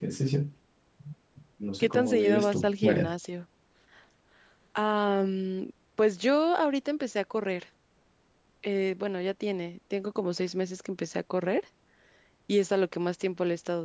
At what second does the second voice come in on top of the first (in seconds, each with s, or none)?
1.8 s